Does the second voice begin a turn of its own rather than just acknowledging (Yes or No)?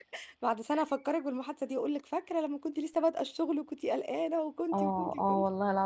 Yes